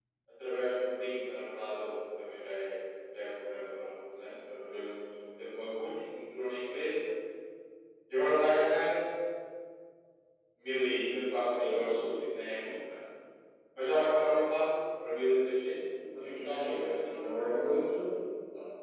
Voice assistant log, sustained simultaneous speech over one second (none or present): present